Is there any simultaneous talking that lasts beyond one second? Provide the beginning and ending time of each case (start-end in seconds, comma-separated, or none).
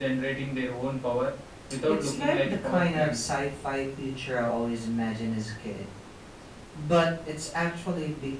2.0-3.2